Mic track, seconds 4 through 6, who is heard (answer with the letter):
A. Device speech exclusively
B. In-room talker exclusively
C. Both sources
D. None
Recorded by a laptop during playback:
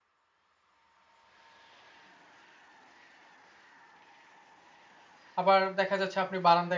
B